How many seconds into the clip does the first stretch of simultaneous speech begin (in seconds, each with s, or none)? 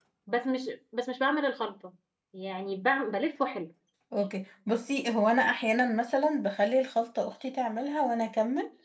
none